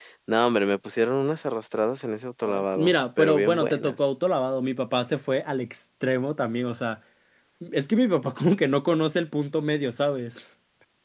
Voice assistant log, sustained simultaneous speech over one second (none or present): present